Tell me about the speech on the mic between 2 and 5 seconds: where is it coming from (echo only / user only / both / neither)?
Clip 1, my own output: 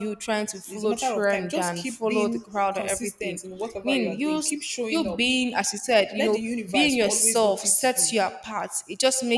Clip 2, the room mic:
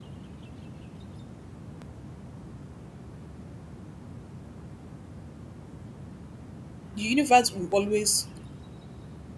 neither